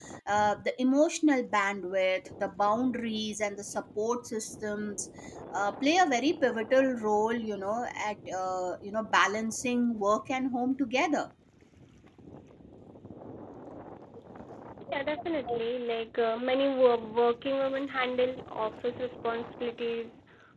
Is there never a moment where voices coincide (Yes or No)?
Yes